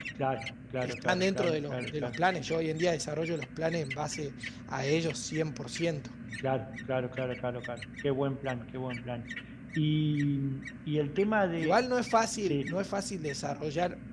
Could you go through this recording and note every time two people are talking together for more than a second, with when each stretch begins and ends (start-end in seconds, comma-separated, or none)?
0.8-2.2